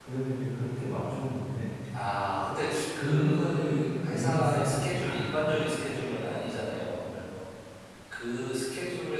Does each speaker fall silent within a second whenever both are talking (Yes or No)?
No